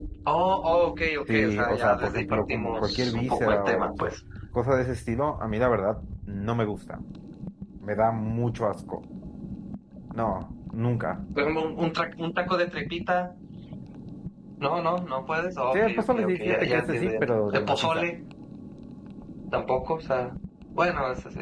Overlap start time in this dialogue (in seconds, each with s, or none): 1.3 s